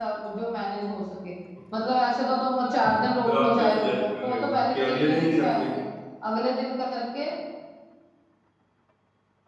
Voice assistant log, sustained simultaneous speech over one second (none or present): present